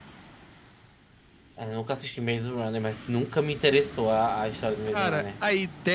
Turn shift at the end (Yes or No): Yes